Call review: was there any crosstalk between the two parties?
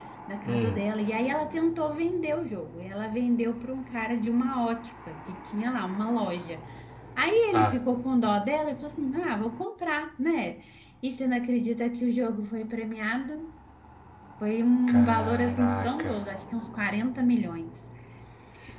Yes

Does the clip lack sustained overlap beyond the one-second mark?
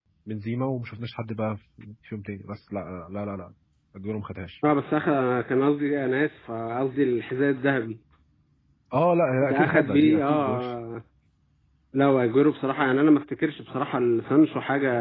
No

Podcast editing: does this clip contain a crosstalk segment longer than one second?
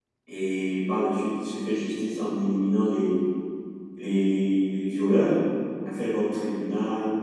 No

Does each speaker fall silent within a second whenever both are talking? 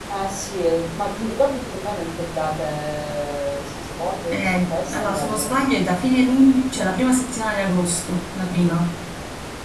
No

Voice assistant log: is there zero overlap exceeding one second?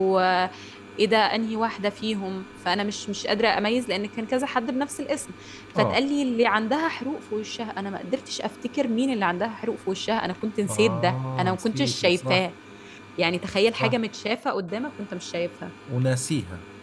No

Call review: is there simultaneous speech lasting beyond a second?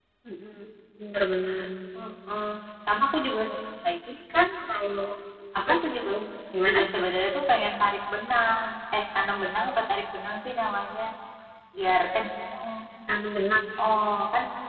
No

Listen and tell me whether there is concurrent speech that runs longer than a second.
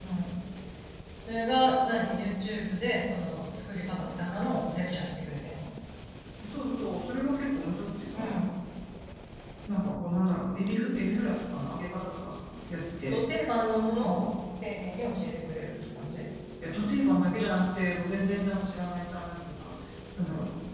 No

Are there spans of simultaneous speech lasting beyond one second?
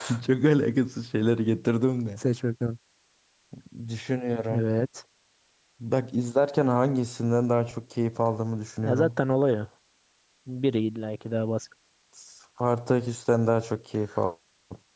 No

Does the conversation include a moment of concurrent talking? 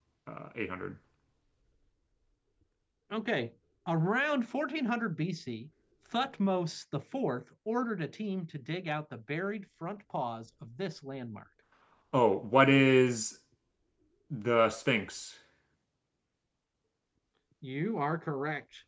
No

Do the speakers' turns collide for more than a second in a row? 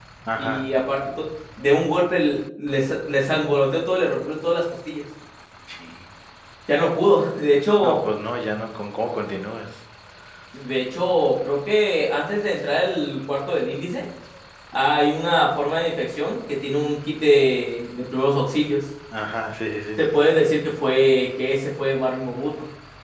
No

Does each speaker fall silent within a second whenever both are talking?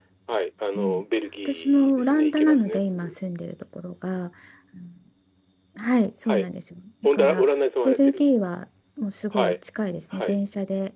No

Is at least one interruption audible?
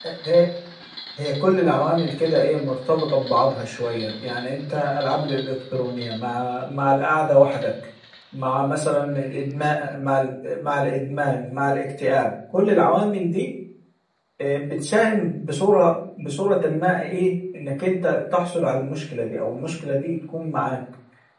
No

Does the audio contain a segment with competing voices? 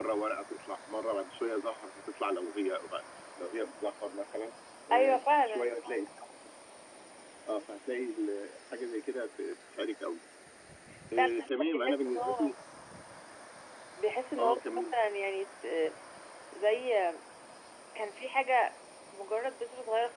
Yes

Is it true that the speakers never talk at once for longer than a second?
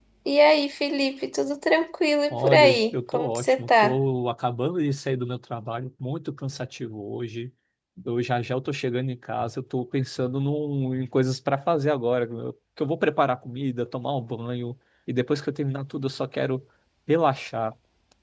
No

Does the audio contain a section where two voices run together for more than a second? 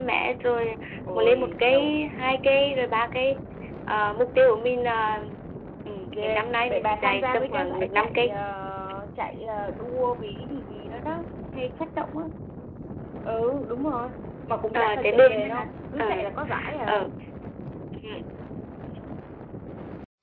Yes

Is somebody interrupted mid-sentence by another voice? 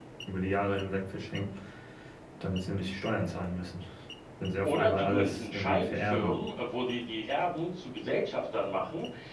Yes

